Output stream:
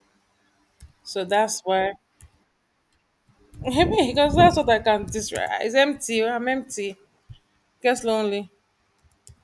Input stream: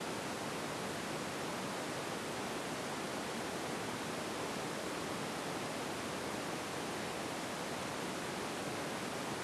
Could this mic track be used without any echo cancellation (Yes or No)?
Yes